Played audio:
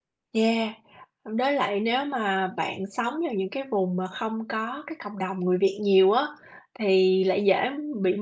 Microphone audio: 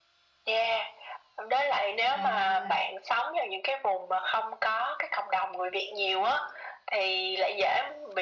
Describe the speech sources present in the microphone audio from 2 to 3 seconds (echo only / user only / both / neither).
both